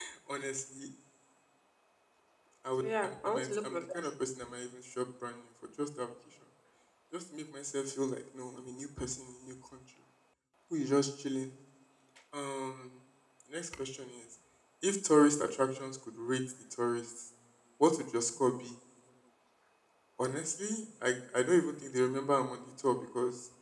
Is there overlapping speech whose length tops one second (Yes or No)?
Yes